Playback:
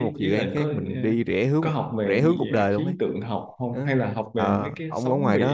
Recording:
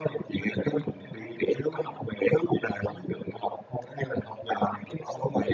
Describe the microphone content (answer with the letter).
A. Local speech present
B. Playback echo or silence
B